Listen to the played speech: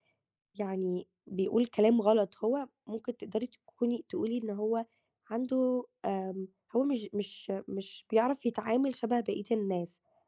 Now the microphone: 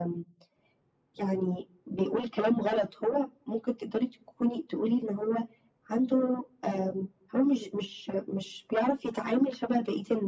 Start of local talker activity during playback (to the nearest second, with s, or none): none